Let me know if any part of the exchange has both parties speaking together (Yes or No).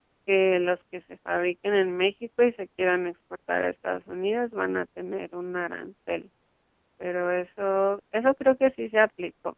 No